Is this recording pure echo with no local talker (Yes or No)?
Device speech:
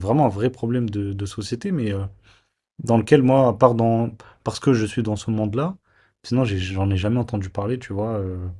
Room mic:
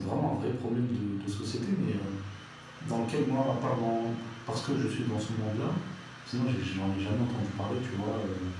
Yes